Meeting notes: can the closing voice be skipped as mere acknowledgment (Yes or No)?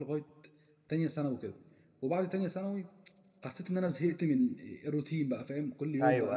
Yes